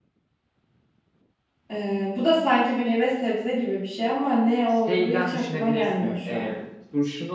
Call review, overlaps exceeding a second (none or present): present